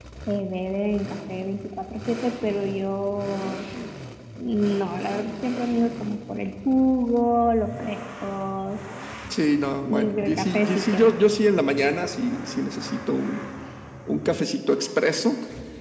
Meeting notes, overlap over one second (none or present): present